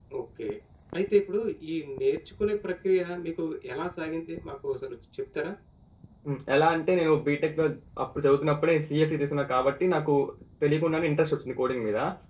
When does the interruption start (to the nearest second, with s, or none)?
none